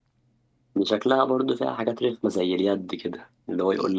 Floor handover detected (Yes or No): No